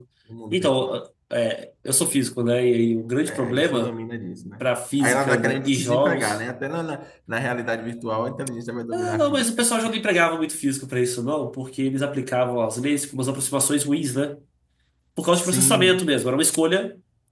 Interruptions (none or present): present